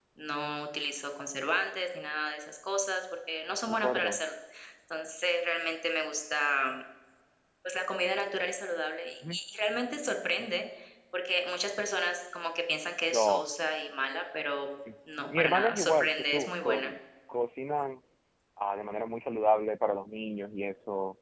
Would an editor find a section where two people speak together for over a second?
Yes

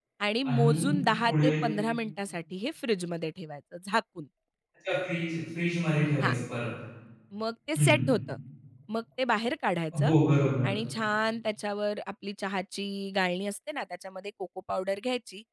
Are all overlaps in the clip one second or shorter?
Yes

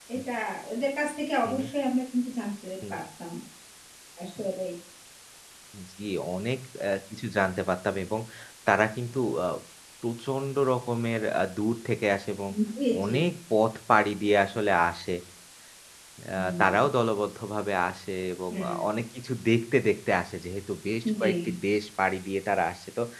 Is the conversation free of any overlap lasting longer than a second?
Yes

